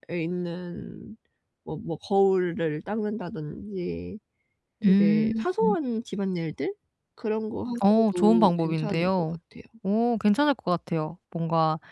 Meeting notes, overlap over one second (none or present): present